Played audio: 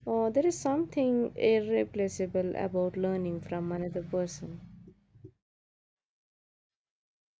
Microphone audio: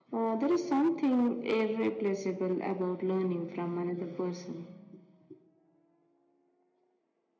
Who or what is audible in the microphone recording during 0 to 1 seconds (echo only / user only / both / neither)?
echo only